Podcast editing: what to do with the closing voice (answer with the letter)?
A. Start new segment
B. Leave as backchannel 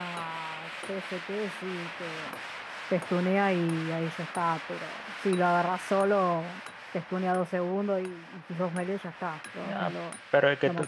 A